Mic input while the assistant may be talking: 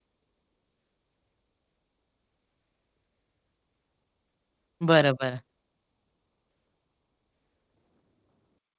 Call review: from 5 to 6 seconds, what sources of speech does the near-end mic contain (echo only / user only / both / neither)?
user only